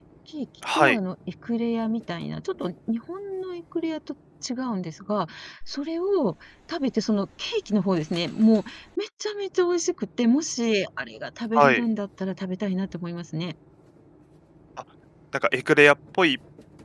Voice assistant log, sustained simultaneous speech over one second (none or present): none